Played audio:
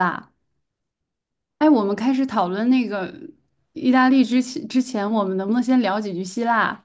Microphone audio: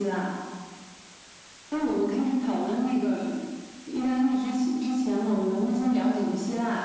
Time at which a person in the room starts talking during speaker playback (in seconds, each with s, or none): none